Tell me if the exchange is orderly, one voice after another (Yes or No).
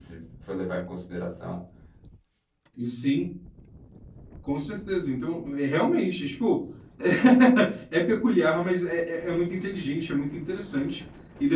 Yes